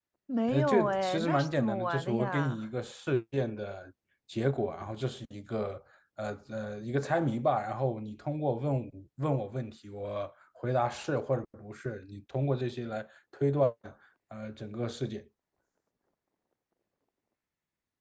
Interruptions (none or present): present